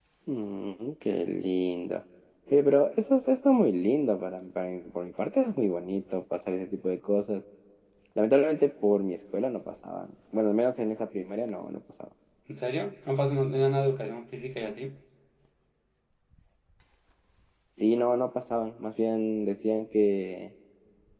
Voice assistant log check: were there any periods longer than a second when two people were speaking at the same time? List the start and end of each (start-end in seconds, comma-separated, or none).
none